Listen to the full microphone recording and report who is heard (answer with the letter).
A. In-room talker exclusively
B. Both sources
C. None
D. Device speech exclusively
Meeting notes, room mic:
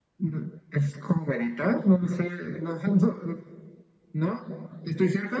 D